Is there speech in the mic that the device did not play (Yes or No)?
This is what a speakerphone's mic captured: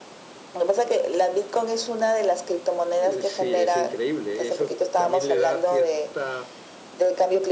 Yes